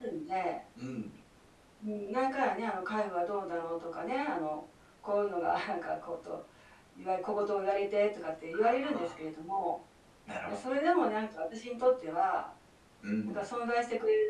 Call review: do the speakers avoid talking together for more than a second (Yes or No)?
Yes